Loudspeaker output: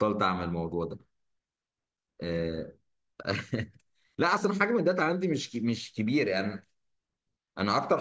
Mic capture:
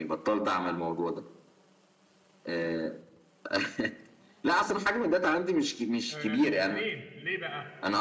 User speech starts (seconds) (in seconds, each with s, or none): 6.1 s